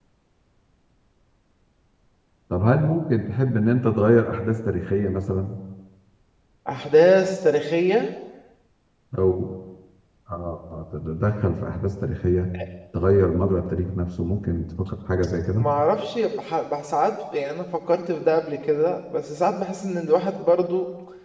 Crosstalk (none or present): none